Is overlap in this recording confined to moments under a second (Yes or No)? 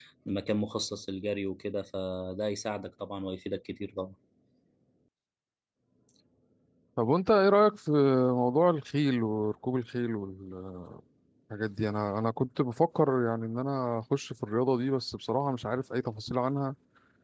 Yes